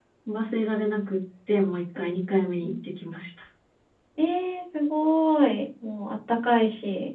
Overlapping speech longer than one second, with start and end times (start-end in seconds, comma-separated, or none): none